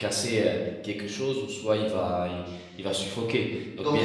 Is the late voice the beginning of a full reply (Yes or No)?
Yes